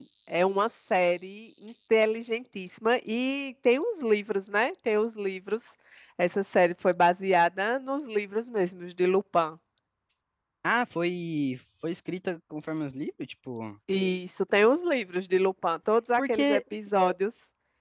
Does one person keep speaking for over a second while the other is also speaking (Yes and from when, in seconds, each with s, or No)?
No